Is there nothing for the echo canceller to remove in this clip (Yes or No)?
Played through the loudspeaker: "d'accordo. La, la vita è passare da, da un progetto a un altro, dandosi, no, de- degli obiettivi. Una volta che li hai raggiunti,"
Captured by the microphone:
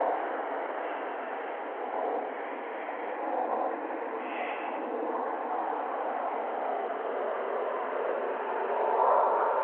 Yes